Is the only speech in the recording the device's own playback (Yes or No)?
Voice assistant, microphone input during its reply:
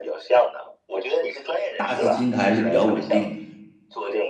No